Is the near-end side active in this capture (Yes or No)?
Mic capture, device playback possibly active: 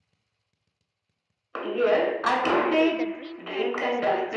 Yes